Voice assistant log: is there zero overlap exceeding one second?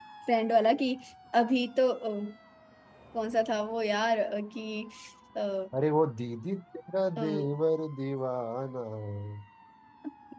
Yes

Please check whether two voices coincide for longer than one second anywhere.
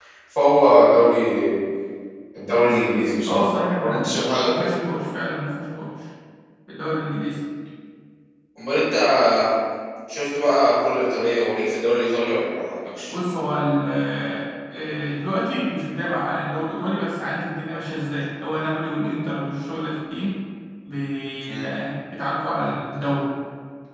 Yes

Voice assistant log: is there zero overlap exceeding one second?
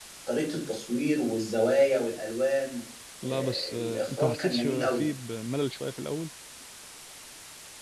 No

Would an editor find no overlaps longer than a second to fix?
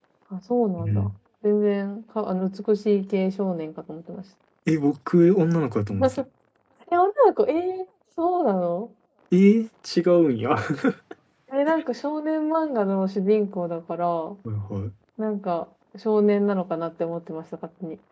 Yes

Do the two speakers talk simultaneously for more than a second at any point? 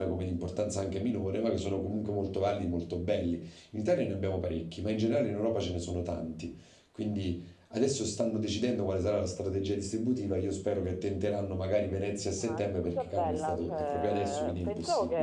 Yes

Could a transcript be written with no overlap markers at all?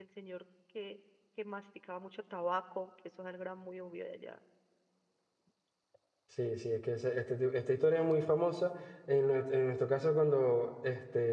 Yes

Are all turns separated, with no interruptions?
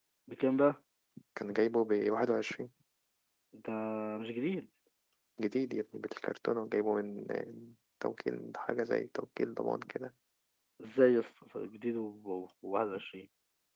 Yes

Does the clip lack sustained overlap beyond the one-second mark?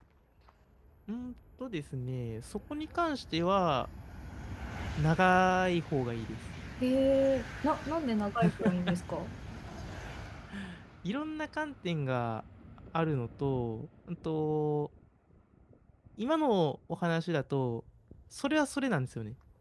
Yes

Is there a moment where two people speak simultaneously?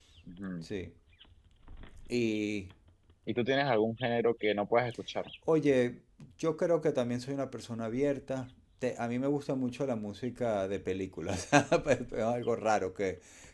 No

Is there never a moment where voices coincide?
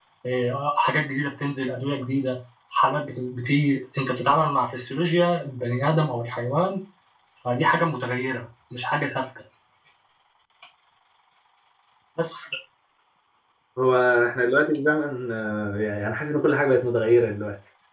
Yes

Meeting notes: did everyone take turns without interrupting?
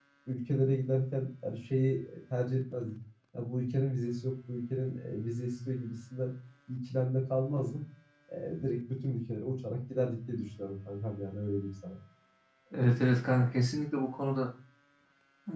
Yes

